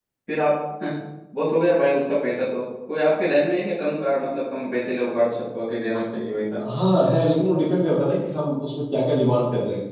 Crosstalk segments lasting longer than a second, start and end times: none

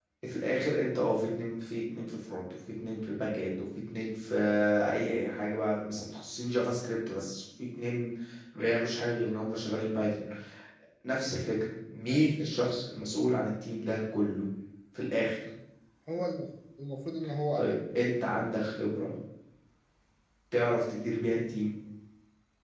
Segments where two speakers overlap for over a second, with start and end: none

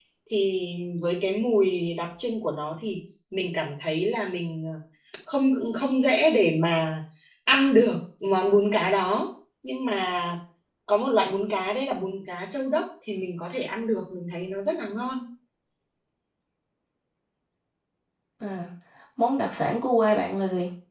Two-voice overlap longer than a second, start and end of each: none

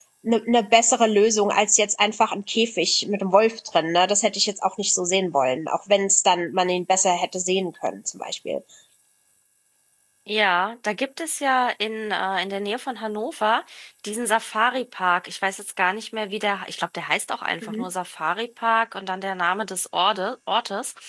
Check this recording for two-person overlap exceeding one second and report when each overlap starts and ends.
none

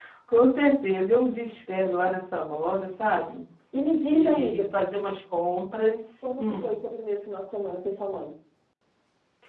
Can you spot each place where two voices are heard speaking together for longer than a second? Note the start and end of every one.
none

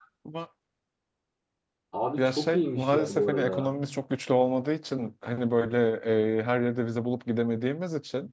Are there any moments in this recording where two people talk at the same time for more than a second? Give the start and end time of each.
2.2-3.7

